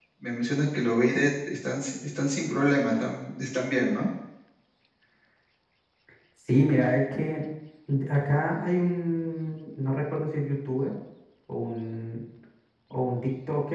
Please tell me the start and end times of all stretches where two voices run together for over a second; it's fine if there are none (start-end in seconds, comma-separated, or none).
none